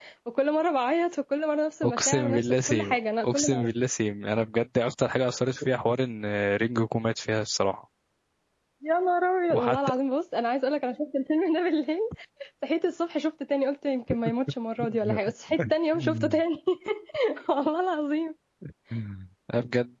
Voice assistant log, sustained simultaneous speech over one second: present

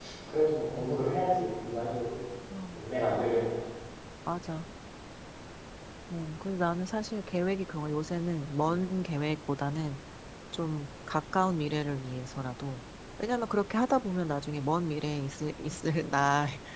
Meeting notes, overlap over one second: none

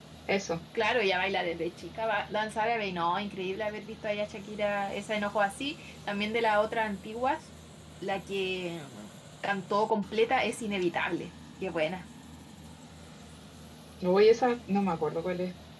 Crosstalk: none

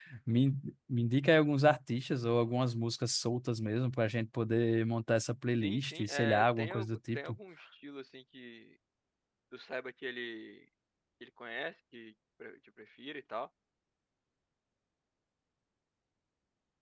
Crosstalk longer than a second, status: present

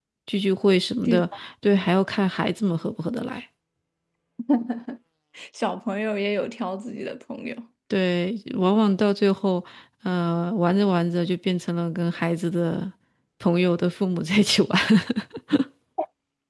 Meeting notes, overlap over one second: none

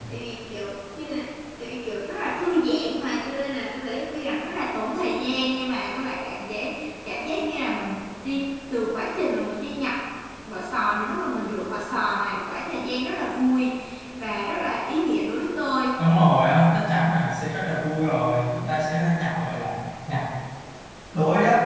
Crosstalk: none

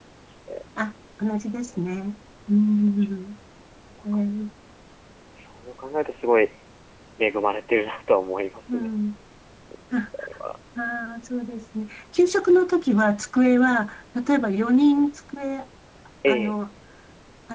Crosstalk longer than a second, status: none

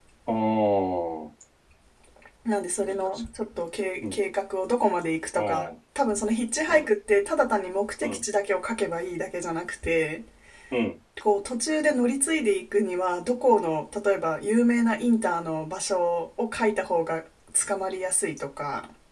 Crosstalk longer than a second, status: none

